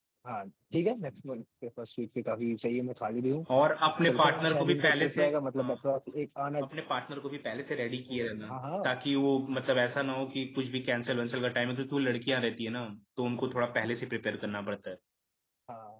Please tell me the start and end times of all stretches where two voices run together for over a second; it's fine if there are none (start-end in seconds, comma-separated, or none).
4.1-5.7